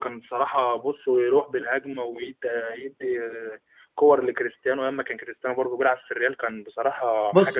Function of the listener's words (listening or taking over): taking over